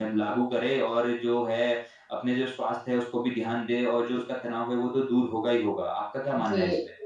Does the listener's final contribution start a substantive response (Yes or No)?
Yes